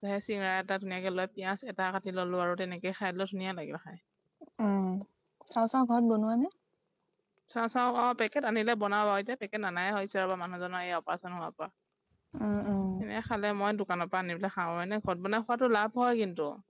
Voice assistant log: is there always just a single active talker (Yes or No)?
Yes